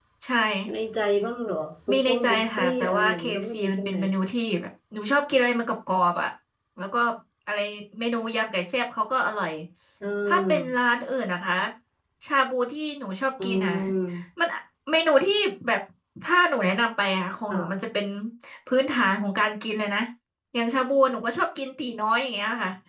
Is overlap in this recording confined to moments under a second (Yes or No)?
No